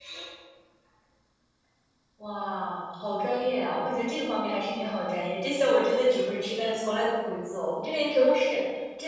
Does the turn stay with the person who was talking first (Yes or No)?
Yes